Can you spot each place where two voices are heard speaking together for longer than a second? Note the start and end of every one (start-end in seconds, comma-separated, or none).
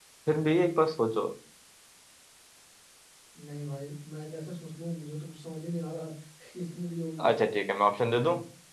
none